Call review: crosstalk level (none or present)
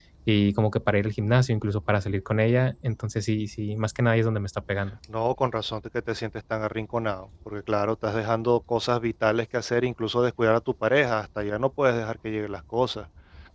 none